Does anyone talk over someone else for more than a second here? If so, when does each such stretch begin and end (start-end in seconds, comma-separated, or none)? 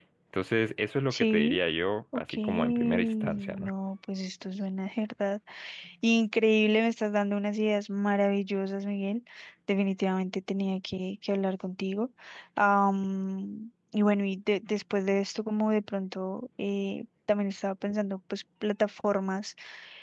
2.1-3.7